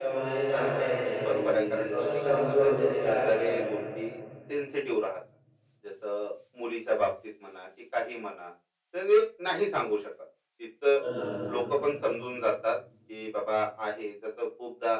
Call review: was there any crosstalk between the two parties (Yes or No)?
Yes